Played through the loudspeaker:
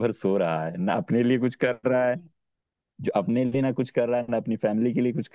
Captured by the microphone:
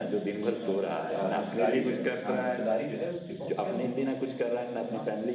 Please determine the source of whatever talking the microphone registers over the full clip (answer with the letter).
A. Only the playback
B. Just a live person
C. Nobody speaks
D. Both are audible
D